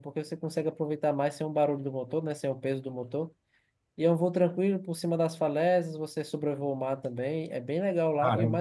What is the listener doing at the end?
listening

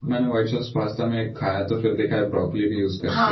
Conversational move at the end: taking over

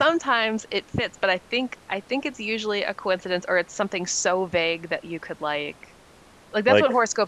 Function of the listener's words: listening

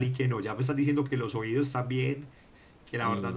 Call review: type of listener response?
listening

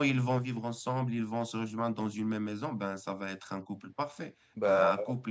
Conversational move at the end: listening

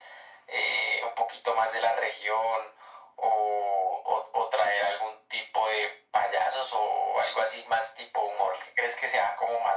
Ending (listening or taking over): listening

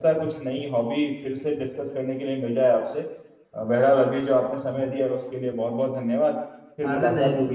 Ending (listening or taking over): taking over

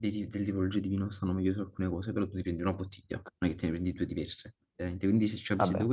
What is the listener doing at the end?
listening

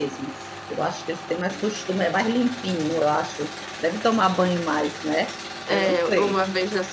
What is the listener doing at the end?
taking over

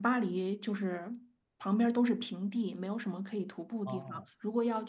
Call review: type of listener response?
listening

